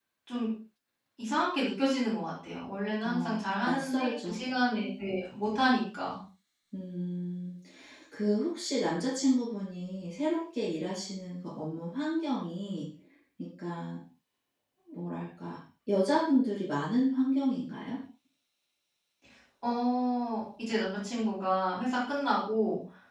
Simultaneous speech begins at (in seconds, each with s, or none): 3.0 s